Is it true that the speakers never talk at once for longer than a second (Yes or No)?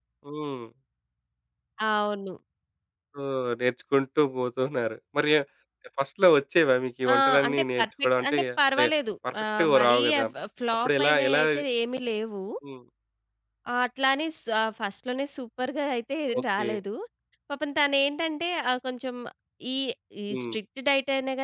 No